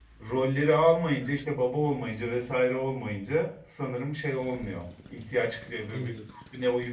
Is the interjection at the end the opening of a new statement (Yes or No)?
No